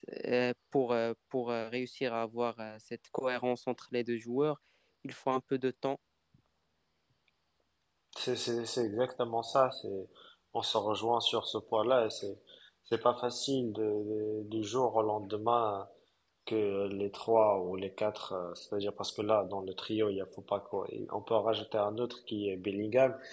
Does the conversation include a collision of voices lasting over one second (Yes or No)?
No